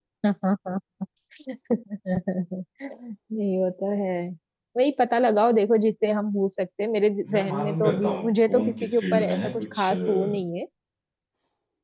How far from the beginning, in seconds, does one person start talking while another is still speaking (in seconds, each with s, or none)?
7.2 s